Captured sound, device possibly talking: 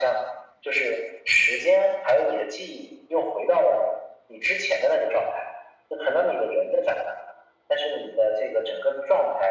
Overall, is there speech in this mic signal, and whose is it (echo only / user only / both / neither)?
echo only